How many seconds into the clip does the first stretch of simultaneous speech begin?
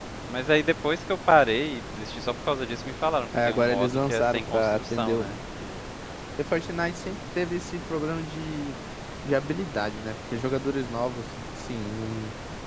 3.3 s

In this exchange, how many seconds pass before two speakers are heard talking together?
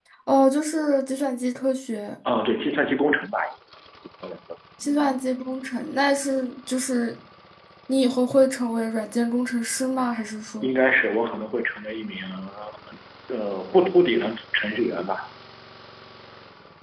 none

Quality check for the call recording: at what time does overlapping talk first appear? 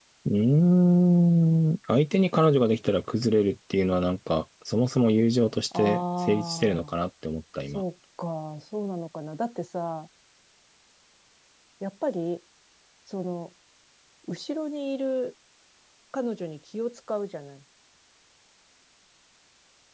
5.7 s

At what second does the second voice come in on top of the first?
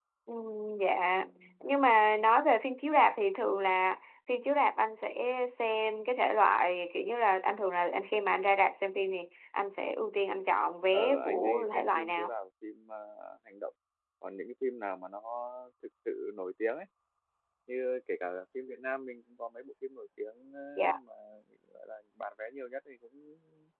10.9 s

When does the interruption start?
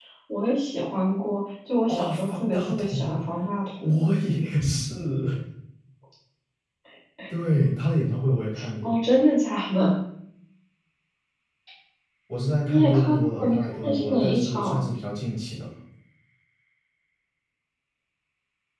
1.9 s

